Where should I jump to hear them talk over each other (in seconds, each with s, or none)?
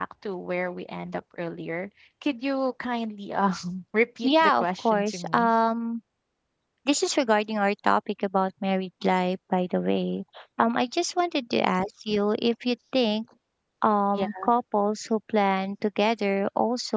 4.2 s